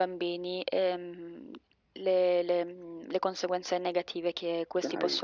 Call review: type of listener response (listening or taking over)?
listening